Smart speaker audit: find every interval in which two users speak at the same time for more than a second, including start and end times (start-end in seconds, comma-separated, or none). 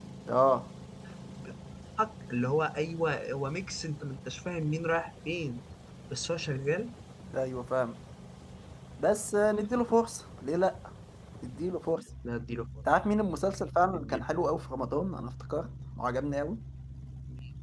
none